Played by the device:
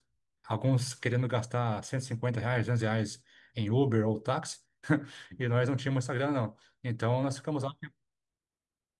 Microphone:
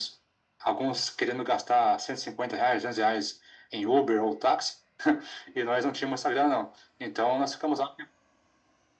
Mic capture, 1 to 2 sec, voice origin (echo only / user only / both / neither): echo only